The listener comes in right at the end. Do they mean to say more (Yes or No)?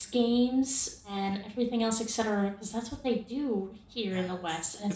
Yes